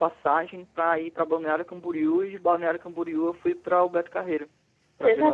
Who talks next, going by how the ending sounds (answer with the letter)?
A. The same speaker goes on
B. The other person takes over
B